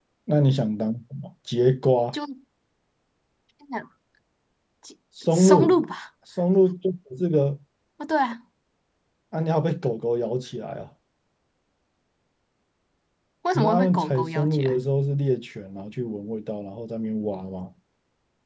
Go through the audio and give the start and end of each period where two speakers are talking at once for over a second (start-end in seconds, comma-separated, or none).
13.6-14.8